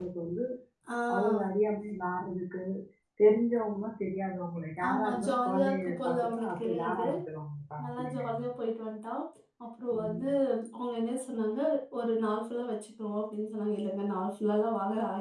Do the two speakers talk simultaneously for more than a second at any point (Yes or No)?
Yes